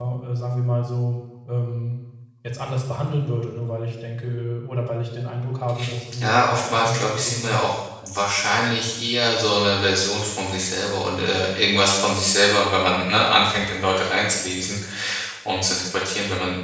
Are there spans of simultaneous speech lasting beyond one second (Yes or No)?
Yes